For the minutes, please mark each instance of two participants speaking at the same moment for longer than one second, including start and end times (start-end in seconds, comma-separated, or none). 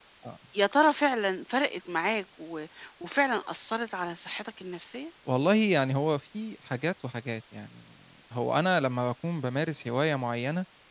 none